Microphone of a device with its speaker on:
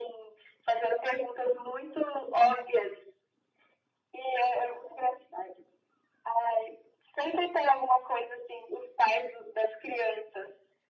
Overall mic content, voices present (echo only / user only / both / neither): echo only